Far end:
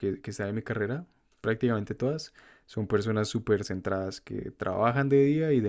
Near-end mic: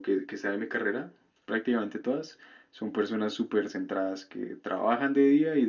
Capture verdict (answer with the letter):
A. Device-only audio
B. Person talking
A